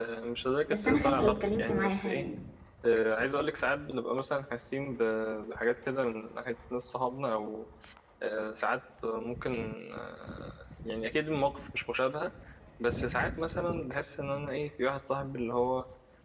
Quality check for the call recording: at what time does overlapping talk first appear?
0.7 s

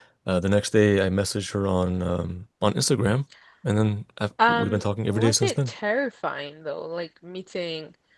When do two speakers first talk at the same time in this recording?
4.5 s

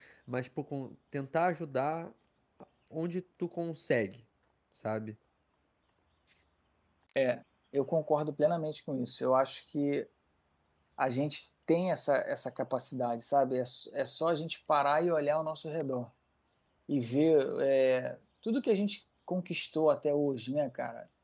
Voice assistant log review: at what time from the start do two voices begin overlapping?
none

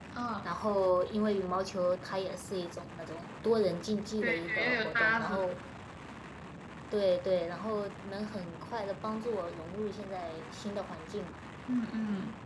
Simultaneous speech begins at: 4.2 s

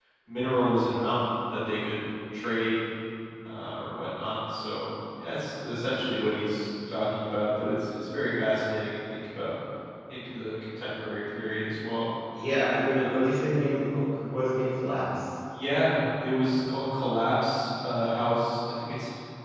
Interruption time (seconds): none

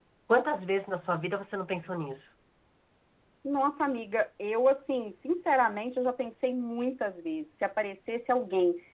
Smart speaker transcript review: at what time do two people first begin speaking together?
none

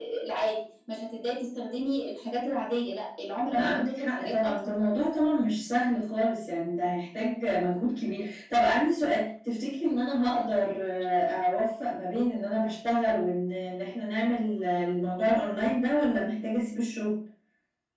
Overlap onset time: 3.5 s

